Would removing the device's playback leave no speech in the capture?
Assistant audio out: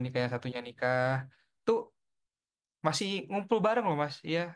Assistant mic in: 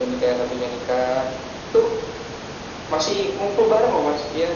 Yes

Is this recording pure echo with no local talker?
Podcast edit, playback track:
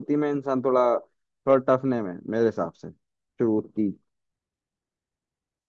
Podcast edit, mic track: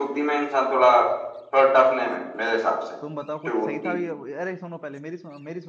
No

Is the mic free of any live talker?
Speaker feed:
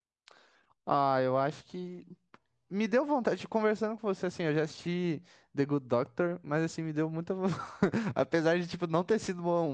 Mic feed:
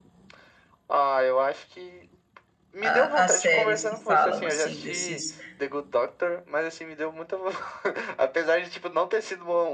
No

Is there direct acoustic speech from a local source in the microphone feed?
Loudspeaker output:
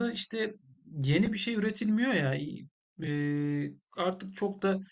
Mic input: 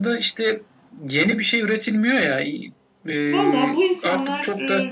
Yes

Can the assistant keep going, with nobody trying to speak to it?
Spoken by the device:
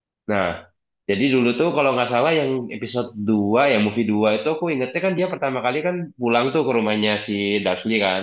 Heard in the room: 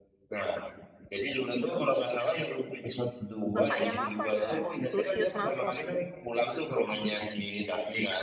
No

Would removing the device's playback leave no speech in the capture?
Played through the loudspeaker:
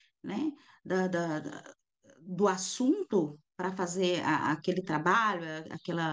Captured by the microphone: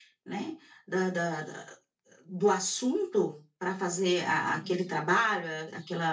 No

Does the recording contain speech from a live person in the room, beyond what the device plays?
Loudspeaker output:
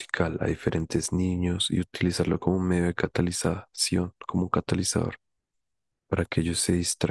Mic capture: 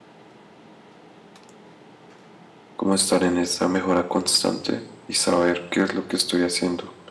Yes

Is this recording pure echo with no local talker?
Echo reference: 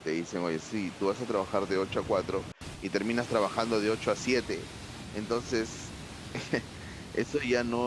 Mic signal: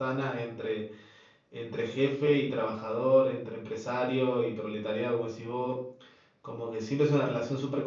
No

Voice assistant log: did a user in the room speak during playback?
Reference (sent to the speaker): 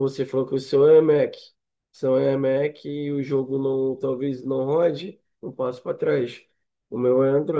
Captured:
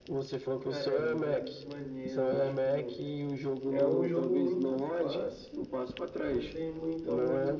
Yes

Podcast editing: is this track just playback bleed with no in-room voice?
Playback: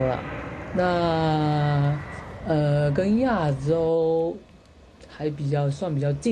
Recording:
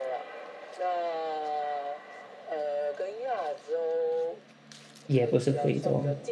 No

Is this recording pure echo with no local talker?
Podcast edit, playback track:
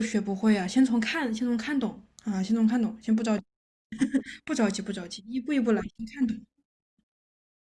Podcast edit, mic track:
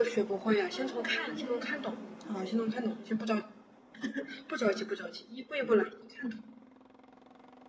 No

